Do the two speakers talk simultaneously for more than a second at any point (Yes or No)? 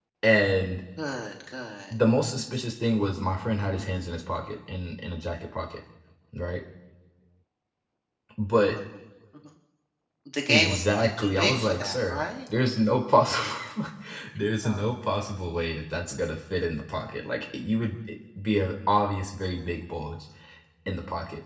Yes